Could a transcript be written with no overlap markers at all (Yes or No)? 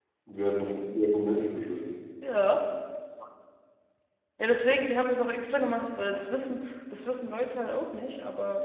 Yes